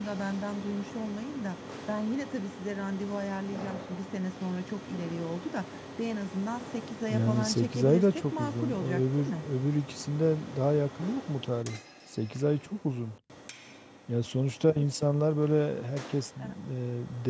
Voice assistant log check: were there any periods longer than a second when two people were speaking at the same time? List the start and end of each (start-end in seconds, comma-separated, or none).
7.1-9.4